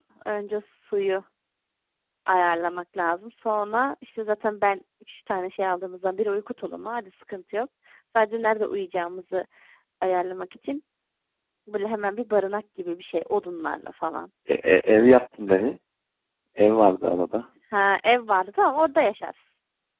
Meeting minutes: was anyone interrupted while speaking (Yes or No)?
No